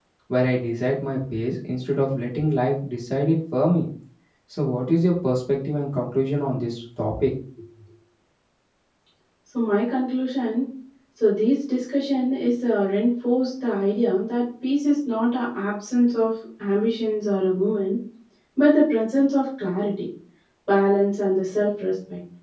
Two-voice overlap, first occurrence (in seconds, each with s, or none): none